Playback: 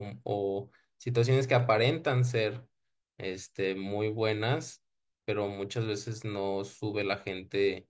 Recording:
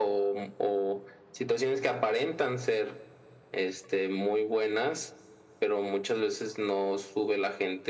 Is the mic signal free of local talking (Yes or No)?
Yes